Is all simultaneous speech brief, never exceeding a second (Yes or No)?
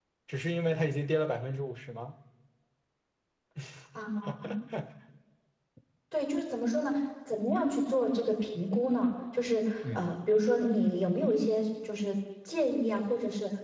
Yes